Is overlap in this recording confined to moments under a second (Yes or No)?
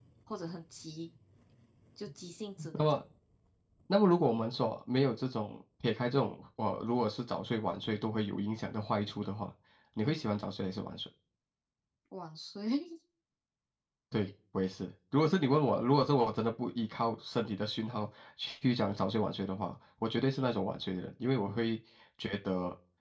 Yes